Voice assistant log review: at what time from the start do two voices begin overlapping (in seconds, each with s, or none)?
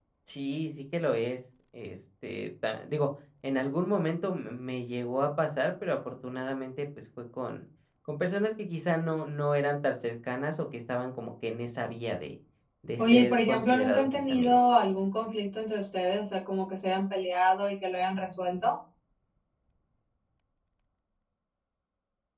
13.0 s